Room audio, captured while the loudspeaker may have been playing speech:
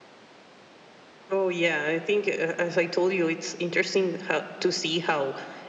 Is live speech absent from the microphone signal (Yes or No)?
Yes